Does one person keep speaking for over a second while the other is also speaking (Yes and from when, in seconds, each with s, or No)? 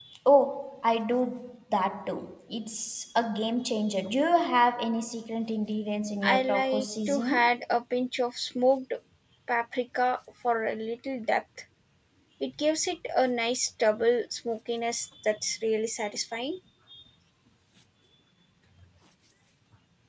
Yes, from 6.2 s